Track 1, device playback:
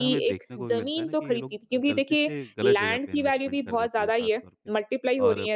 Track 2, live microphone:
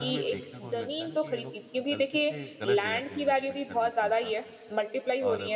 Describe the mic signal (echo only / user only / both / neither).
echo only